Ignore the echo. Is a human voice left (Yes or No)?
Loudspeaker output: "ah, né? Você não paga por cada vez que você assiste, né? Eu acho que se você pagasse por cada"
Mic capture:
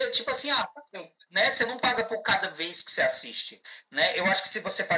No